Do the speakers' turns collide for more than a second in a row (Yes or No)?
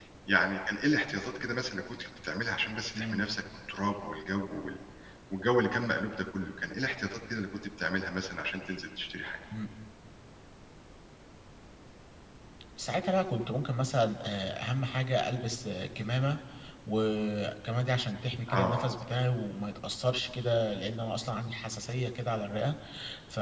No